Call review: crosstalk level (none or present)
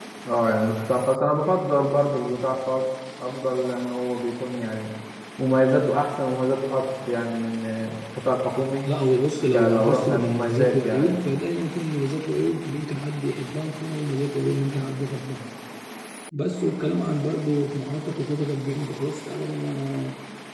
present